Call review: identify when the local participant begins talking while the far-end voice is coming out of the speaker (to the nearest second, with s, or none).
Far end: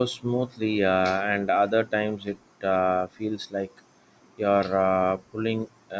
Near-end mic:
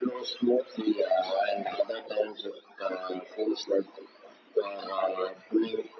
none